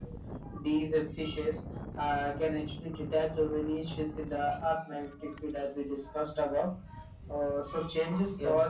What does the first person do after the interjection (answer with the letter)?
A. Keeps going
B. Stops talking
A